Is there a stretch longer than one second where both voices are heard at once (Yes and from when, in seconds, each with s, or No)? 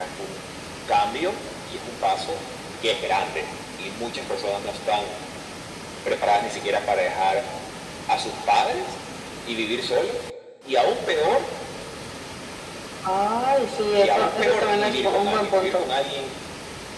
Yes, from 13.5 s